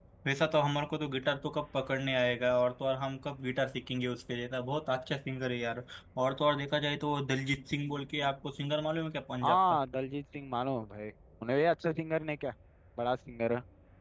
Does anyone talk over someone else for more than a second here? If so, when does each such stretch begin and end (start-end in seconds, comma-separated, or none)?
none